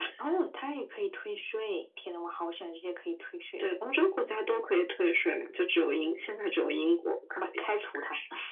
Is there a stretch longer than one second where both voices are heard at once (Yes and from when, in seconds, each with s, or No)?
No